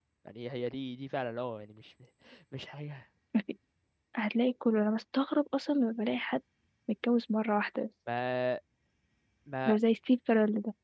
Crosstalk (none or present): none